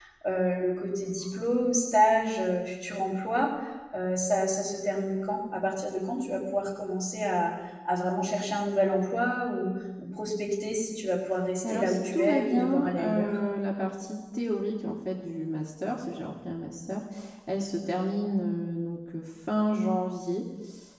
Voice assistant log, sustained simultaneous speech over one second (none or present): present